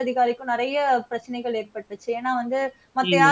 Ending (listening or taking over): listening